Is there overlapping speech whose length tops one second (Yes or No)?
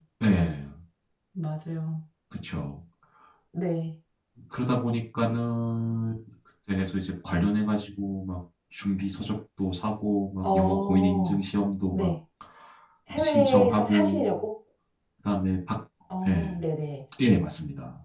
Yes